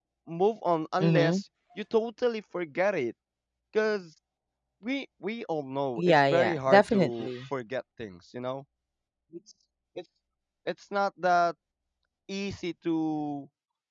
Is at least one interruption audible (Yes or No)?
Yes